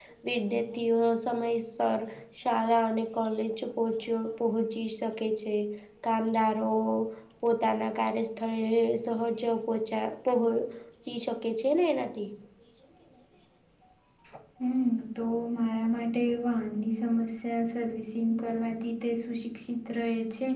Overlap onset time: none

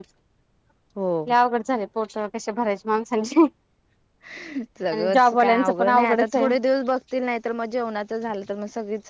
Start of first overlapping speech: 5 s

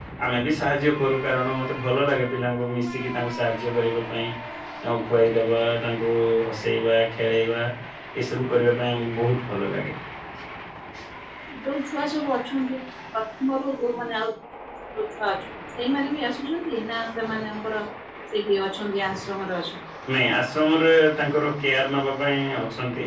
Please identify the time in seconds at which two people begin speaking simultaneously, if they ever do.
none

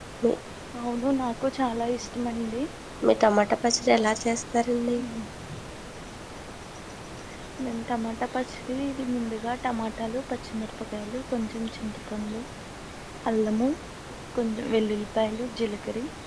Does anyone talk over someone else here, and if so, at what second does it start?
none

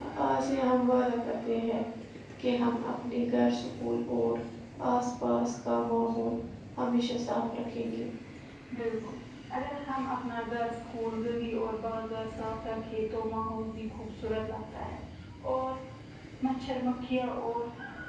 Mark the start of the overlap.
none

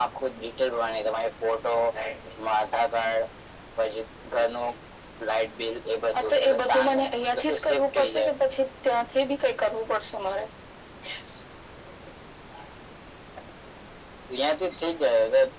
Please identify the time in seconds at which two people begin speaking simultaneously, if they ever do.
6 s

